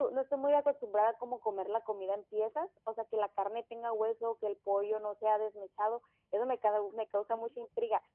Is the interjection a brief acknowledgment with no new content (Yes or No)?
Yes